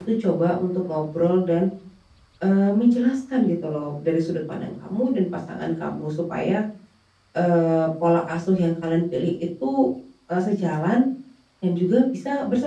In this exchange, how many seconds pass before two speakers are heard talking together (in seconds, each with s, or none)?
none